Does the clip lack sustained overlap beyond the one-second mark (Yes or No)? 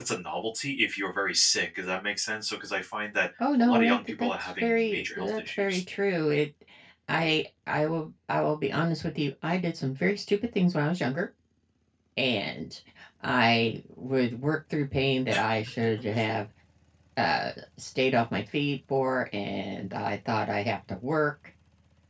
No